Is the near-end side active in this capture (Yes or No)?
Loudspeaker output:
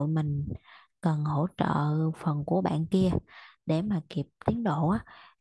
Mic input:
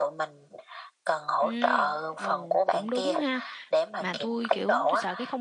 Yes